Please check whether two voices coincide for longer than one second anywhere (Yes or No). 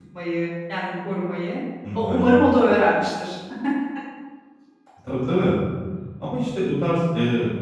No